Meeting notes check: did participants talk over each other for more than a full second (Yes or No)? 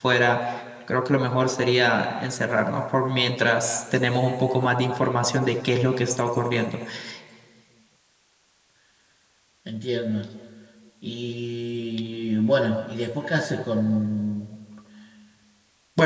No